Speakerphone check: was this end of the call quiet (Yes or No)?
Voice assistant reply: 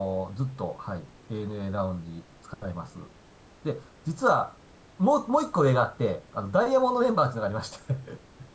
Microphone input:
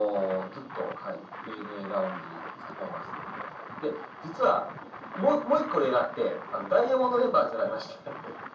Yes